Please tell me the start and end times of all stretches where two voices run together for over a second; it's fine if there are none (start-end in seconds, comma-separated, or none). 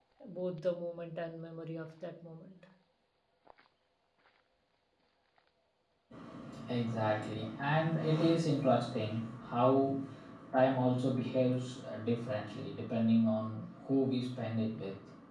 none